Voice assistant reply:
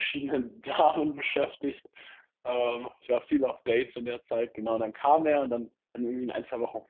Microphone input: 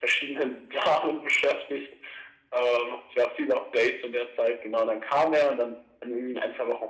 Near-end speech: none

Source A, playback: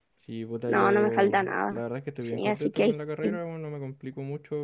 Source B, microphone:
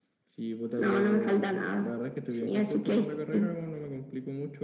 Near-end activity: none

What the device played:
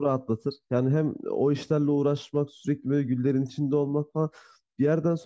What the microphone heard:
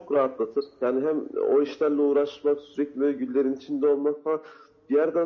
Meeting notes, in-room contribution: none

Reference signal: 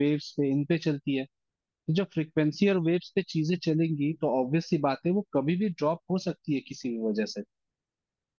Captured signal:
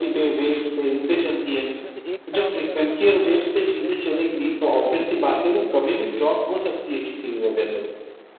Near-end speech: present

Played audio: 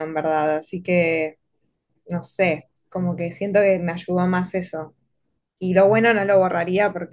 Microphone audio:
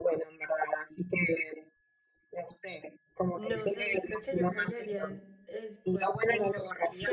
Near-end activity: present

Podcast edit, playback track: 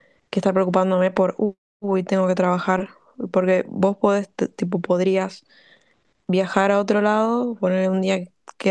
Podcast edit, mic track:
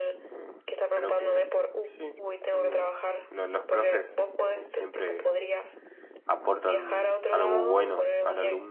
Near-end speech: present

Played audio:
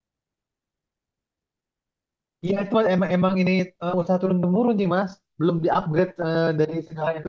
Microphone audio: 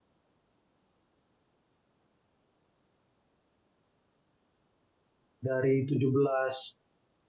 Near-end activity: present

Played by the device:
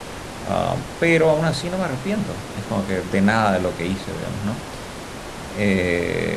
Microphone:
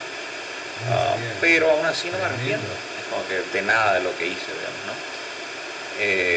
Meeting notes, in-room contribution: present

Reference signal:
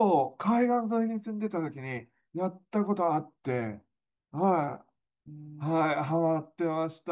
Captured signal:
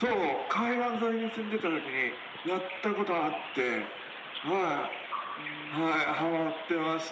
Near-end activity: none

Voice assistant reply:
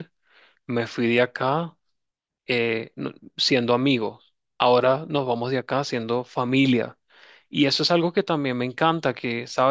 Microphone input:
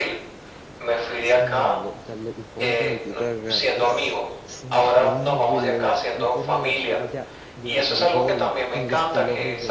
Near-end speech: present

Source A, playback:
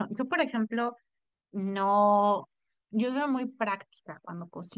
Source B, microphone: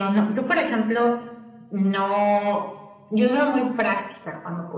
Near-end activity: none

